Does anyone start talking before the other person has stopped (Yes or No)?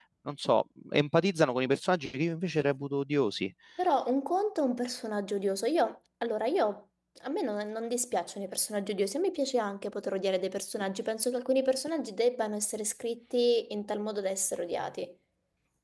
No